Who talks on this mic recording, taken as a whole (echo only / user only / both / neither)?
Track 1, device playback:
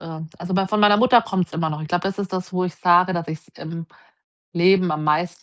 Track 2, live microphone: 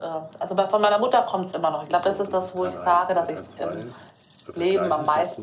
both